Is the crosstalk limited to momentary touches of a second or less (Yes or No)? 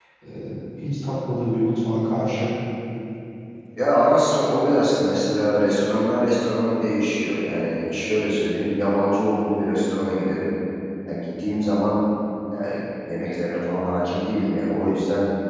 Yes